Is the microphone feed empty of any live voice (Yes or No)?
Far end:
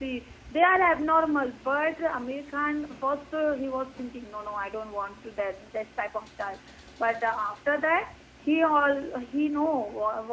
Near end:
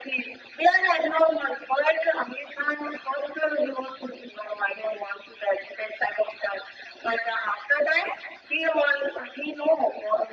Yes